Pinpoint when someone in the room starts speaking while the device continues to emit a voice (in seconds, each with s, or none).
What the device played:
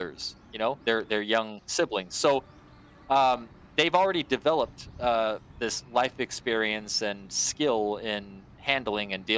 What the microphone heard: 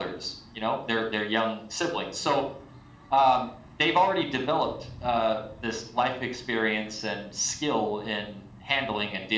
none